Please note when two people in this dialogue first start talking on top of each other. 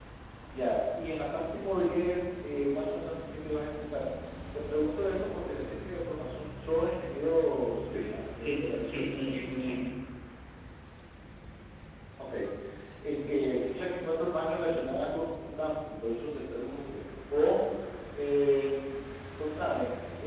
8.4 s

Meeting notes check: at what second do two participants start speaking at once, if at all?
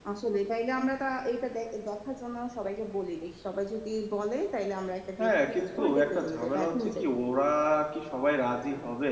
5.2 s

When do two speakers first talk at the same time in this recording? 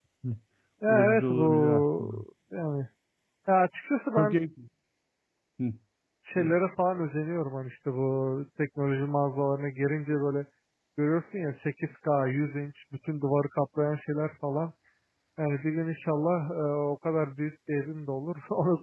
0.9 s

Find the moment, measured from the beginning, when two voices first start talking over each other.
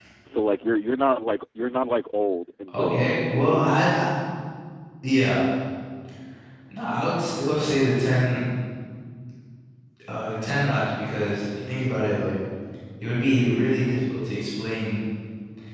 2.7 s

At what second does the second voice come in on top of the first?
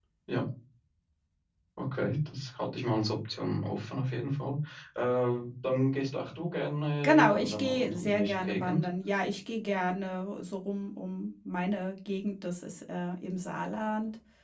7.0 s

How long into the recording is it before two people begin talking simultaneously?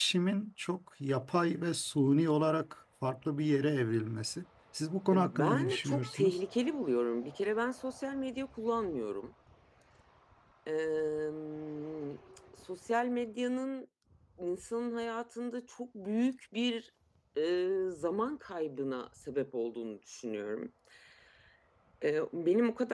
5.1 s

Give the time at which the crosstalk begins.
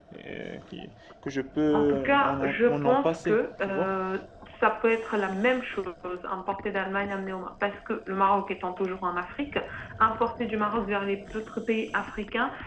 1.7 s

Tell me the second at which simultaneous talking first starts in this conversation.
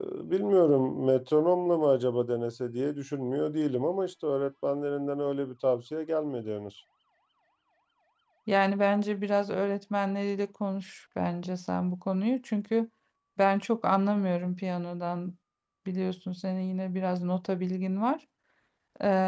none

